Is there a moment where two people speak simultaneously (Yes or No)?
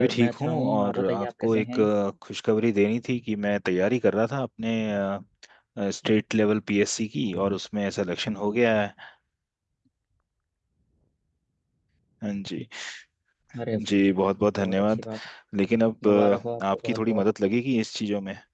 Yes